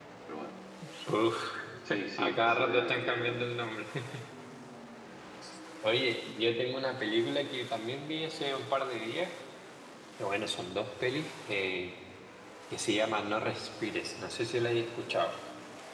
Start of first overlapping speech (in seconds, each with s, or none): 2.2 s